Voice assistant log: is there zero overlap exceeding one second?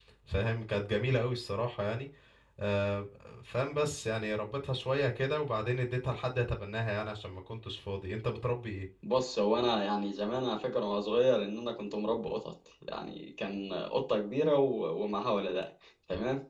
Yes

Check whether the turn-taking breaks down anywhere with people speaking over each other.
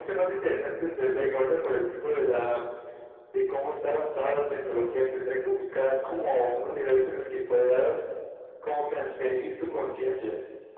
No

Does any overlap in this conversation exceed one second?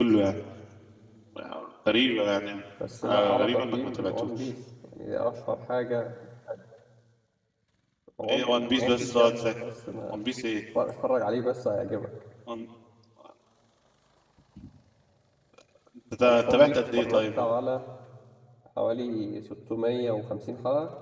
Yes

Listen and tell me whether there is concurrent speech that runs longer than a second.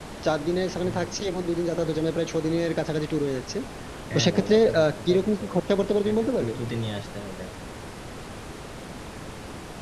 Yes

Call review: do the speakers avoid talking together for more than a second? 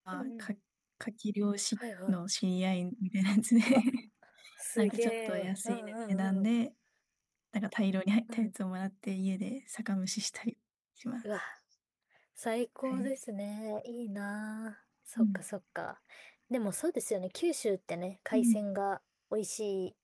No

